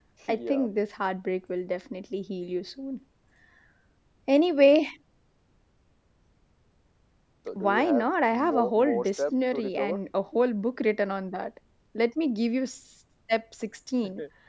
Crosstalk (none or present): present